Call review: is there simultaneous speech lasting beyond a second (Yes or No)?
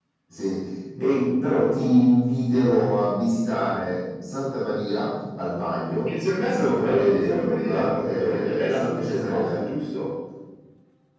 Yes